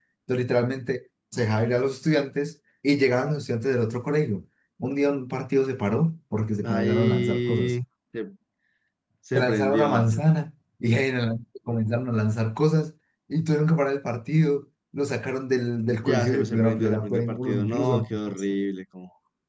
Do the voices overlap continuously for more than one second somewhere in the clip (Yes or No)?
Yes